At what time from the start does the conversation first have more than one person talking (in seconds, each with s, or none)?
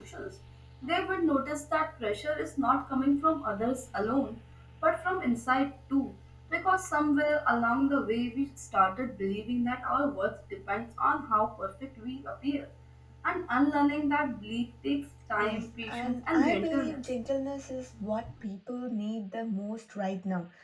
15.4 s